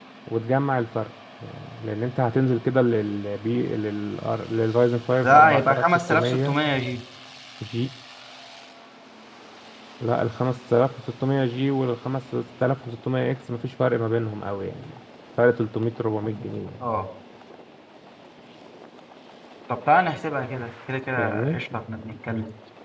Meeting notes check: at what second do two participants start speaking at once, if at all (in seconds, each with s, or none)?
5.2 s